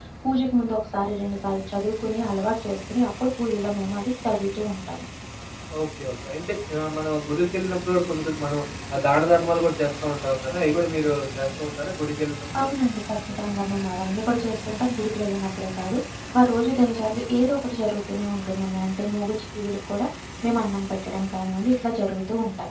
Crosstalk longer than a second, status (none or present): none